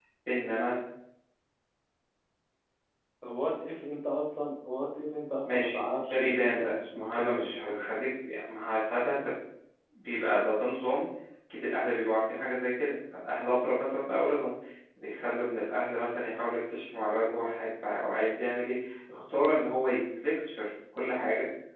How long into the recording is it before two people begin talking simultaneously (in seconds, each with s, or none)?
5.5 s